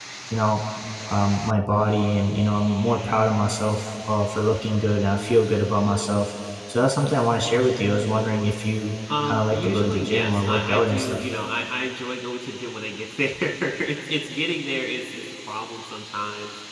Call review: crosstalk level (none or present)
present